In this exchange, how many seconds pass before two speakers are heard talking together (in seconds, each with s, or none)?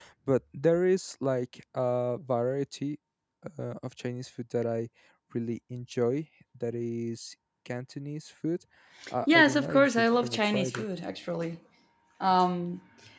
9.3 s